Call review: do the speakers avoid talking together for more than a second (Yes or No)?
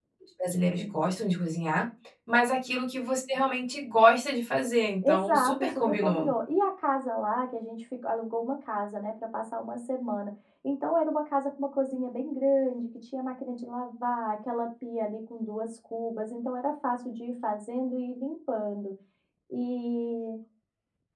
No